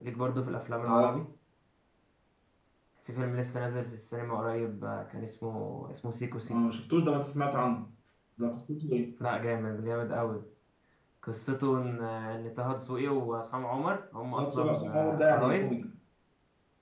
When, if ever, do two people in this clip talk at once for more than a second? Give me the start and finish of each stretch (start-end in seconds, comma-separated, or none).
14.4-15.7